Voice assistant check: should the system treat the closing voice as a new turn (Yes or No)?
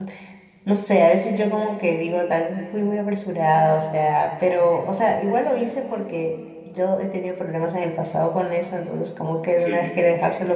No